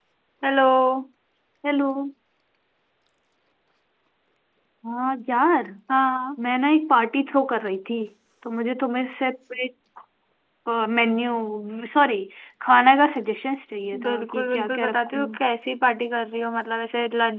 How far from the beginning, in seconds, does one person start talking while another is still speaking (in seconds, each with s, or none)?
13.9 s